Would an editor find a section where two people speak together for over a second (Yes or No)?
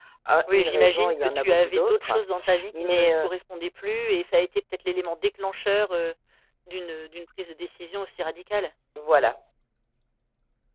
Yes